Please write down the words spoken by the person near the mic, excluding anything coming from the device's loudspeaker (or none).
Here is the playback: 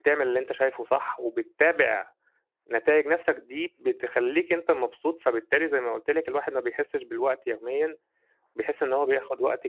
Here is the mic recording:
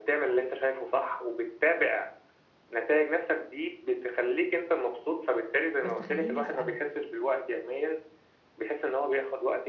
بس خلّيني أسألك،